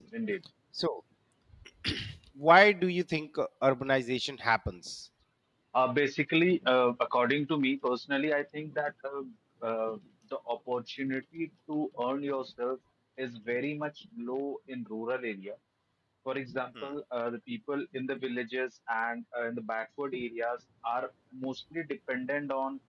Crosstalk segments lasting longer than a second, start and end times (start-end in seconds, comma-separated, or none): none